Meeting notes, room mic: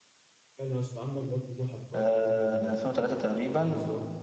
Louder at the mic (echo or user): user